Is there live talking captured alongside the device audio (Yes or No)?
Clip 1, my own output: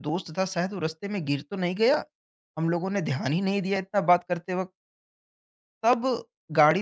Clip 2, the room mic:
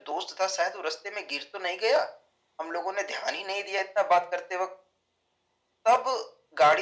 No